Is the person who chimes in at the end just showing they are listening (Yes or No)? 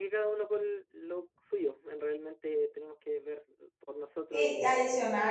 No